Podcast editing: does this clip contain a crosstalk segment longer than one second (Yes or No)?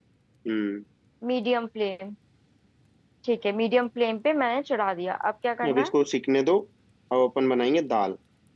No